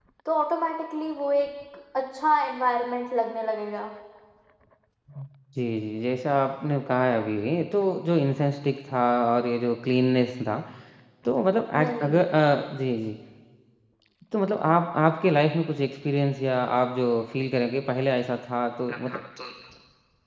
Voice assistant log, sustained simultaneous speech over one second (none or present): none